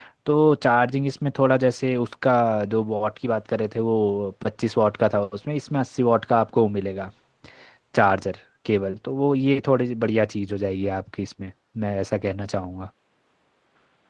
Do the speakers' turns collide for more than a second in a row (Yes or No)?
No